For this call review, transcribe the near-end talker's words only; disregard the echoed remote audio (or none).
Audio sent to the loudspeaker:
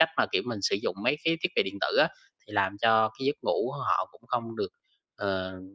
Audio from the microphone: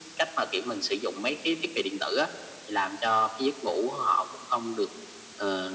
none